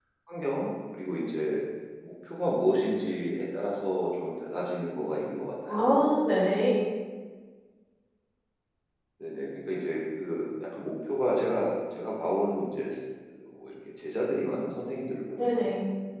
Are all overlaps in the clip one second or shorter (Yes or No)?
Yes